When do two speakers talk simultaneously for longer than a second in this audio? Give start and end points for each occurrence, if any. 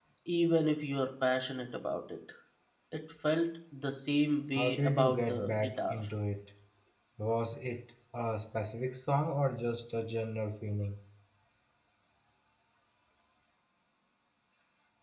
4.5-6.0

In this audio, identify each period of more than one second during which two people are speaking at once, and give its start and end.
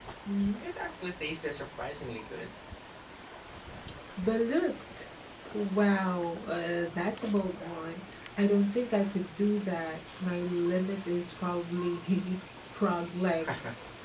none

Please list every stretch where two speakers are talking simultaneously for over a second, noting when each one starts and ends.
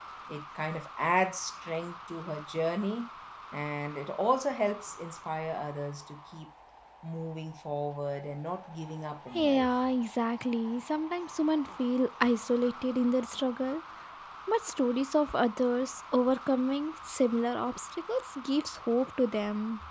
none

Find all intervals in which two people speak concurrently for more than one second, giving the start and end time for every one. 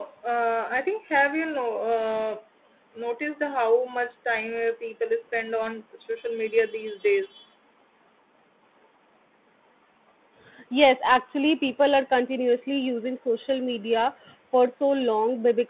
none

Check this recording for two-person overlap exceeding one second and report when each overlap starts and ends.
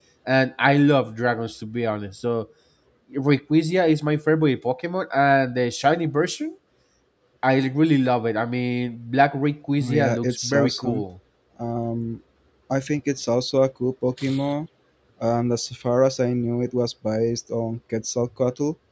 9.8-11.0

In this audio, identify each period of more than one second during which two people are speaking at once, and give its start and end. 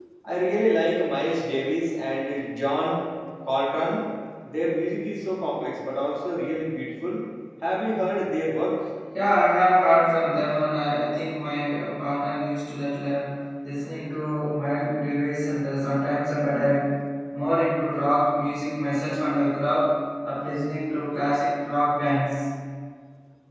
none

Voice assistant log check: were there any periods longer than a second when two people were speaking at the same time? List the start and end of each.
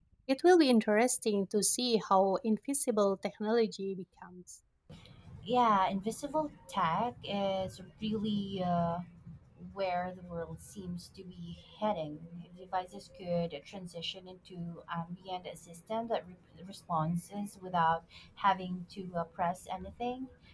none

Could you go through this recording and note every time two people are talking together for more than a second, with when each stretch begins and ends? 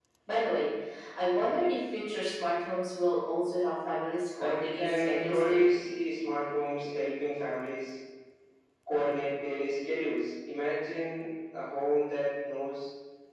4.4-5.6

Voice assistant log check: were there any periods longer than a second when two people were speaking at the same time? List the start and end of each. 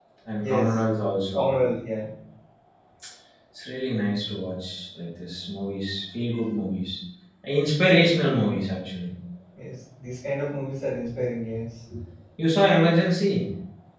none

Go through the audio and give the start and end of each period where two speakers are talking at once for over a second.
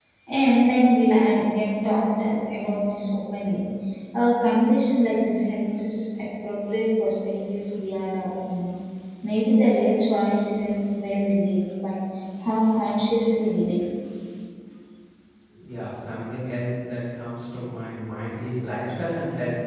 none

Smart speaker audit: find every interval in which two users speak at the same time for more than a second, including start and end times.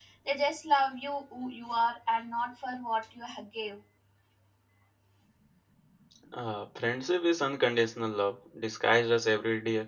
none

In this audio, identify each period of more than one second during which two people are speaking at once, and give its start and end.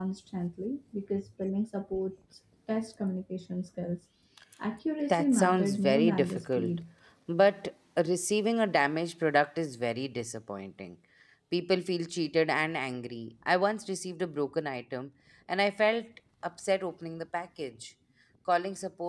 5.1-6.8

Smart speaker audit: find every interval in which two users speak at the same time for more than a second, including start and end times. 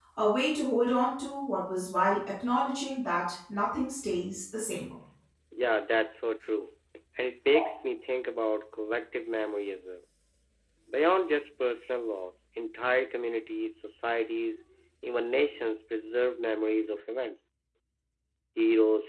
none

